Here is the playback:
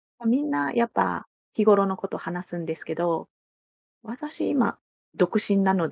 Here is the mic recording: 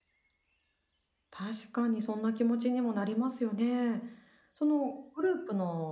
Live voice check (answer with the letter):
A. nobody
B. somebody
B